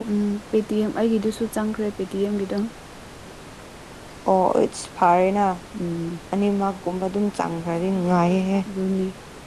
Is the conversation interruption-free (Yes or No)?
Yes